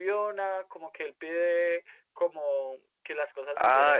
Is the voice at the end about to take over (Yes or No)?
Yes